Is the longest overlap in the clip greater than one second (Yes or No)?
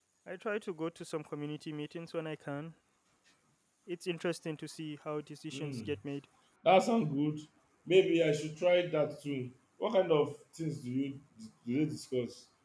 No